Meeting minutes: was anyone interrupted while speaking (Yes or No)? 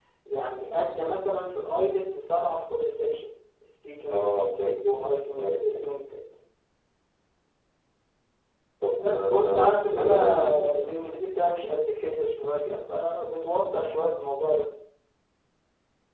Yes